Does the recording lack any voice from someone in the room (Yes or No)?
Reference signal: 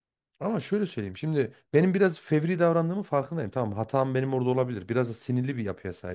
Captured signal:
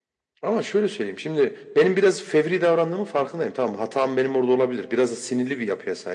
Yes